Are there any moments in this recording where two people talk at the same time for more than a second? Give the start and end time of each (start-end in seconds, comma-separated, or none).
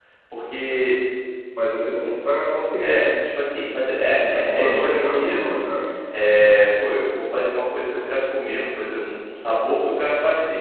4.3-5.6